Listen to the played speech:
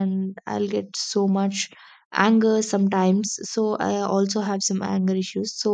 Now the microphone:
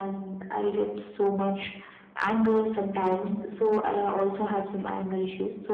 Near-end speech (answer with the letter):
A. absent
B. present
A